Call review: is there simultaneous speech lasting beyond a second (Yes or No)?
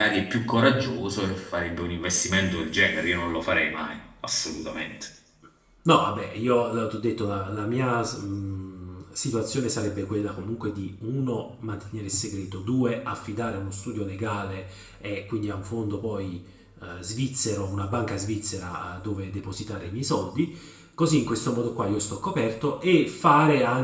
No